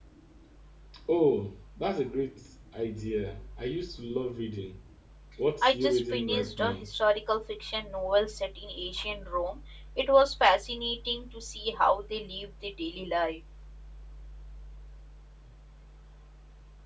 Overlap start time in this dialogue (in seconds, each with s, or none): 5.6 s